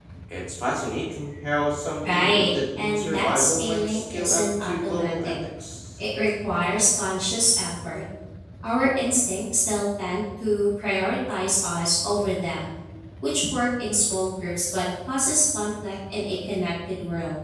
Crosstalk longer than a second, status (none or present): present